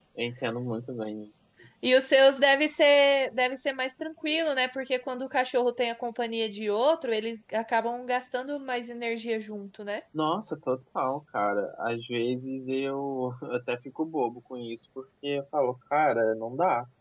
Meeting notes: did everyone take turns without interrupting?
Yes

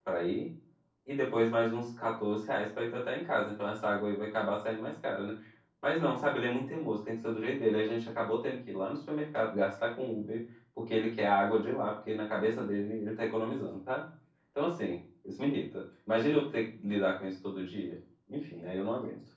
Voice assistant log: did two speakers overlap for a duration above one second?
No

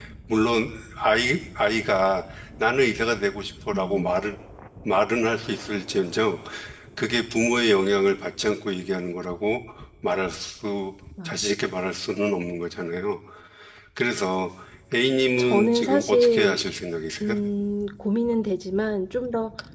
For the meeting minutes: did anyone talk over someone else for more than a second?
Yes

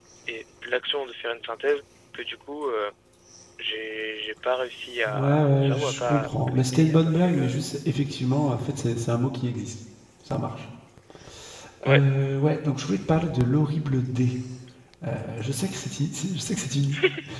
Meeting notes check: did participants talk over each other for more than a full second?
Yes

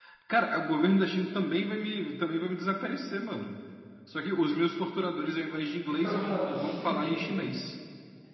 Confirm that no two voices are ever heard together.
No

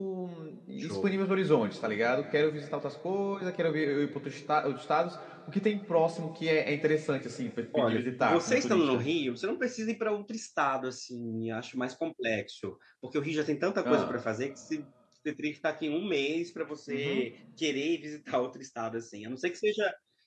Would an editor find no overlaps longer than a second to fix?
No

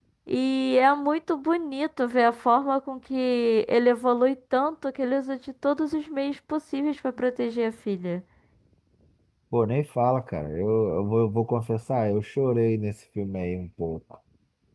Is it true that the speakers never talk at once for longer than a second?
Yes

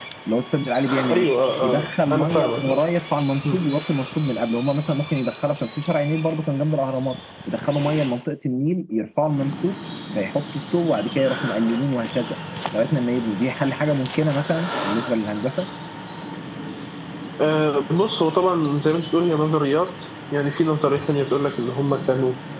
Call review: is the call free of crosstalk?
No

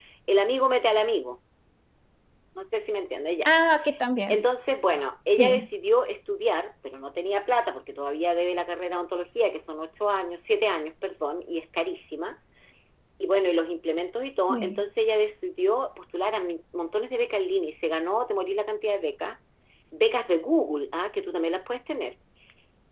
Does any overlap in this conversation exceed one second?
No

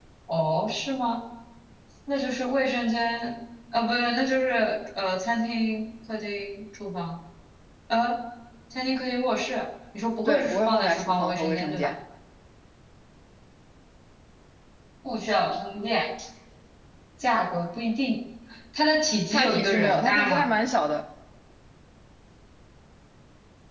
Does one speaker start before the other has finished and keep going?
Yes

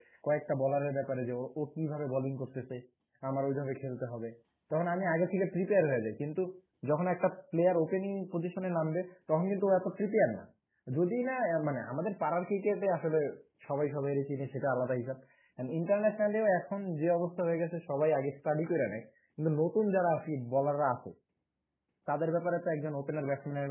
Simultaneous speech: No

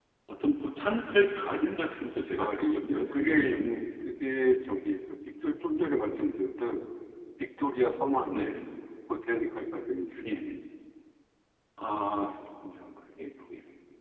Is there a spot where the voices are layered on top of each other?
Yes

